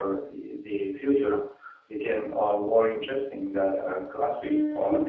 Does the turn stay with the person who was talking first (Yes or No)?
No